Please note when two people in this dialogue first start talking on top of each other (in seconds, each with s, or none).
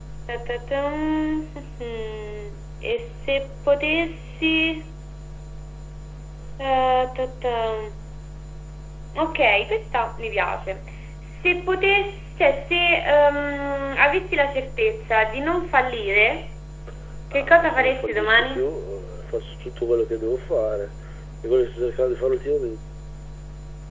17.3 s